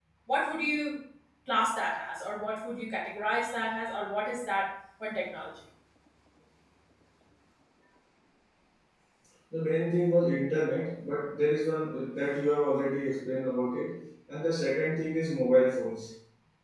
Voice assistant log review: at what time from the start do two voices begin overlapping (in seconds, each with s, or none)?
none